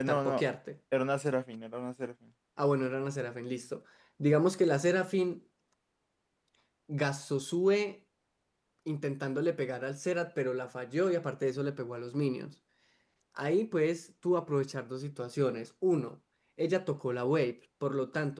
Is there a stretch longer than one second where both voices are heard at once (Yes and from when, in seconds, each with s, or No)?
No